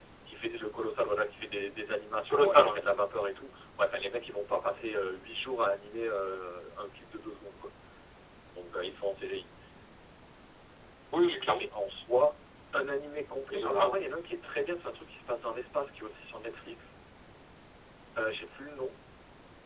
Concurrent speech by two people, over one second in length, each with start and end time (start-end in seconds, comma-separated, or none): none